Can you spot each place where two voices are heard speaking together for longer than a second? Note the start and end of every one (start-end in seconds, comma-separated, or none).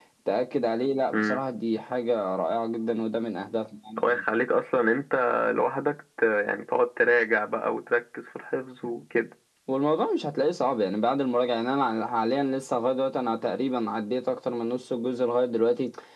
none